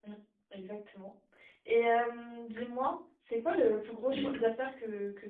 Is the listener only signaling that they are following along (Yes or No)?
Yes